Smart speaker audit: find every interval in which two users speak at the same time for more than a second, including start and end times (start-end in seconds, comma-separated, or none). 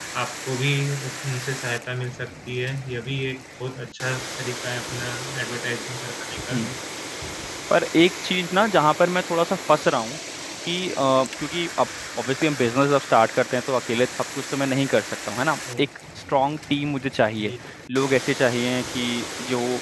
none